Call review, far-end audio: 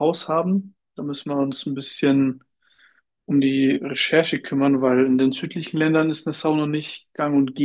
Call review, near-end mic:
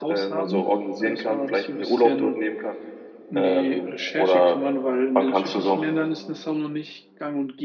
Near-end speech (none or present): present